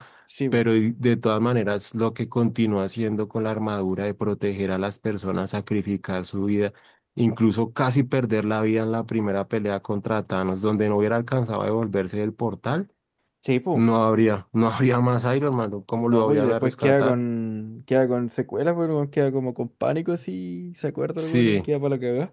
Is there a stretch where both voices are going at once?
Yes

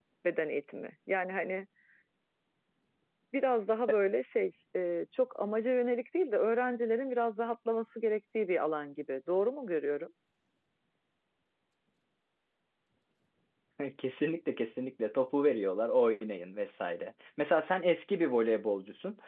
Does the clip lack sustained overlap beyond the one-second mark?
Yes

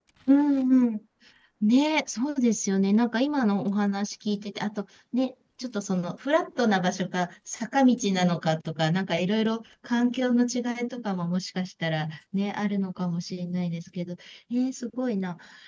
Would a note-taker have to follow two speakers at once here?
No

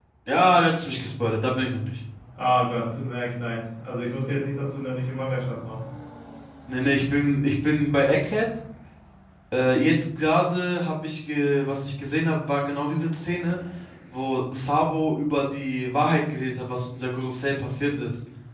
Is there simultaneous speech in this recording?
No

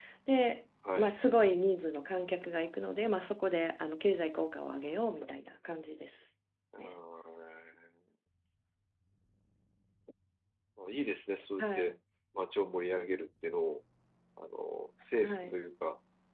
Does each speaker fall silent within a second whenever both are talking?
Yes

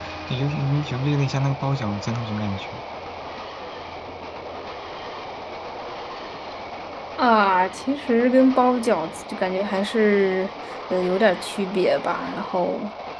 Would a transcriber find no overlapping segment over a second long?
Yes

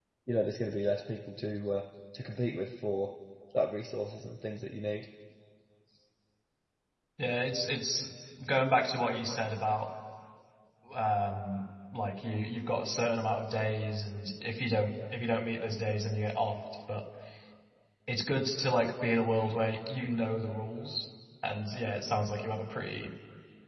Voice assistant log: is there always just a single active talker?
Yes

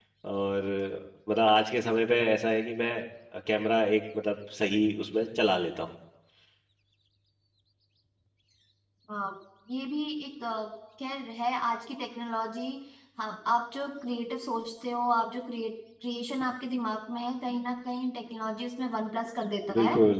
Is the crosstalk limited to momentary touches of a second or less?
Yes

